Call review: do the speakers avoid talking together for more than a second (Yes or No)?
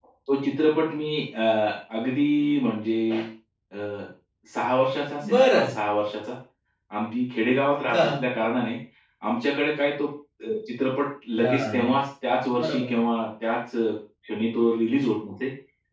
Yes